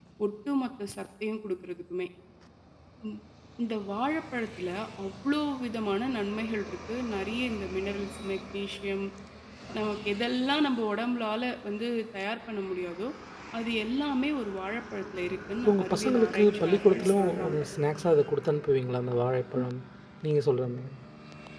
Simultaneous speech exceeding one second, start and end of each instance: 15.6-17.6

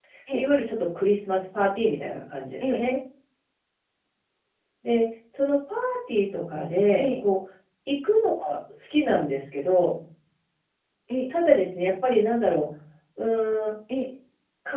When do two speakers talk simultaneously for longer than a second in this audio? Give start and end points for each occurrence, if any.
none

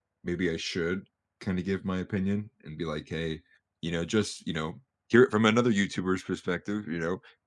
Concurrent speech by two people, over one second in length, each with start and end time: none

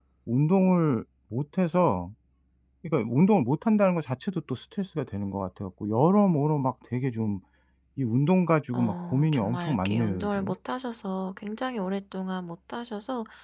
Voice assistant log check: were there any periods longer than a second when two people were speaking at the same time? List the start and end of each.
8.7-10.5

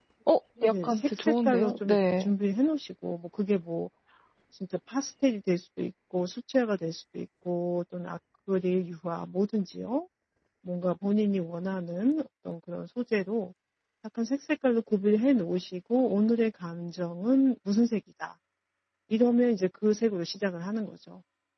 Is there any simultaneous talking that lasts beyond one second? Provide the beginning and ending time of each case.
0.6-2.3

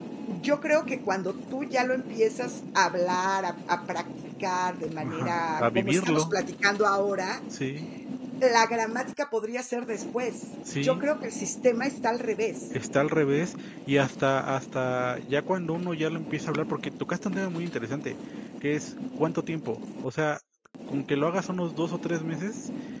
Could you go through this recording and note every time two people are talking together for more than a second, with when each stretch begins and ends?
5.0-6.3

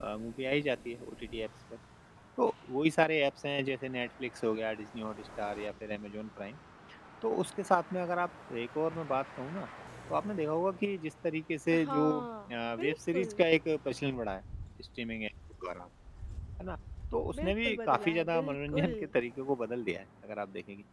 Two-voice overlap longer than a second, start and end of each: 11.8-13.4, 17.4-18.9

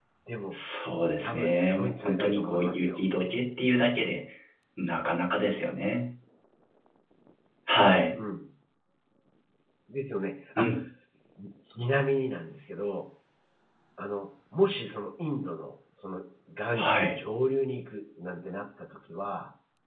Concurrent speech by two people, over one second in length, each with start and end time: 1.2-3.0

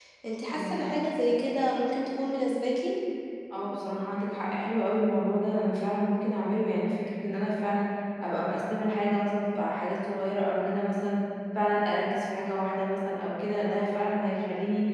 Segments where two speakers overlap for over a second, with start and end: none

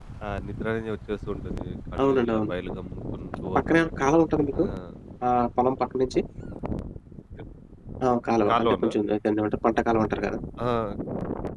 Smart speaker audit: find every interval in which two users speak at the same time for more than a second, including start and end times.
none

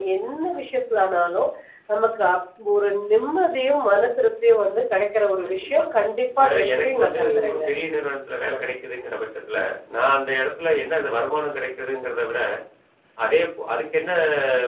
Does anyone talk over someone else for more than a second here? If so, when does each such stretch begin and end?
6.4-7.6

